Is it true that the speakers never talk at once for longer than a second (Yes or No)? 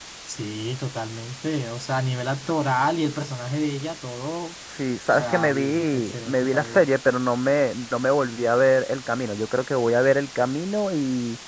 No